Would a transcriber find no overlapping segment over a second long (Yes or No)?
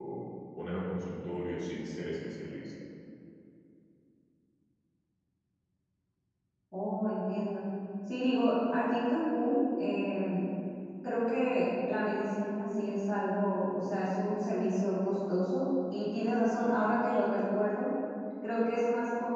Yes